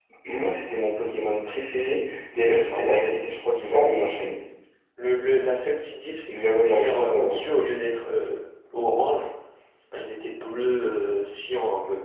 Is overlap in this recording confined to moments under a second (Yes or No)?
No